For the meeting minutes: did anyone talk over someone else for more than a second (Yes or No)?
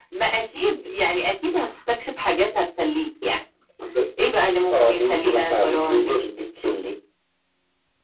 Yes